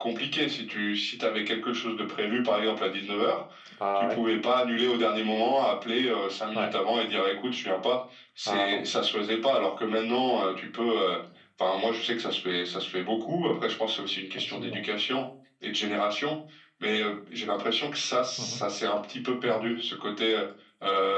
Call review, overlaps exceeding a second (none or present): none